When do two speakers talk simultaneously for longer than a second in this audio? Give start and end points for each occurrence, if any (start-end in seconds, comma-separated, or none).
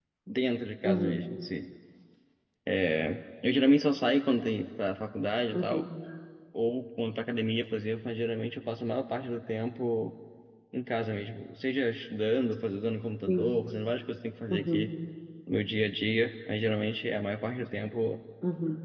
none